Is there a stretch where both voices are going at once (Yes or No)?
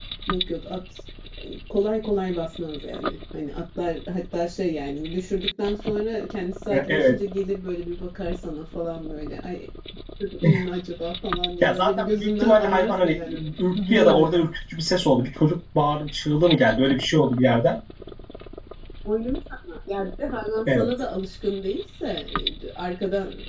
Yes